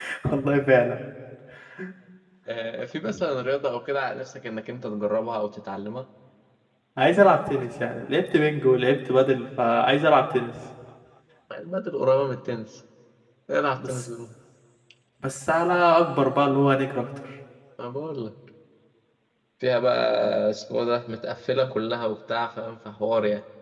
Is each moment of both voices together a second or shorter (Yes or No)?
Yes